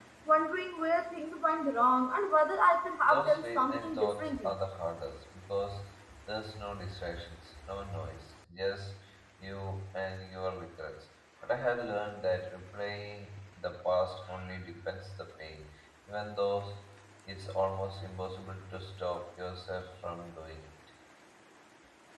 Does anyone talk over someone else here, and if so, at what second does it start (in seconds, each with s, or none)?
3.0 s